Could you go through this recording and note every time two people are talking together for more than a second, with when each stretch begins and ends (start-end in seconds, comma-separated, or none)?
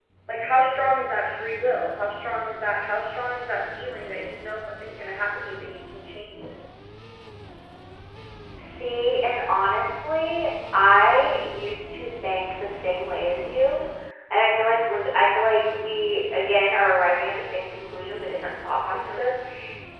none